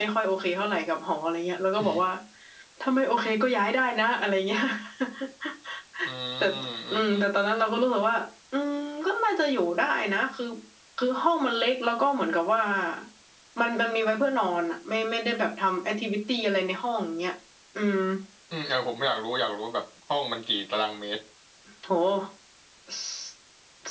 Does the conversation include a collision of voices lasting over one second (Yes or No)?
No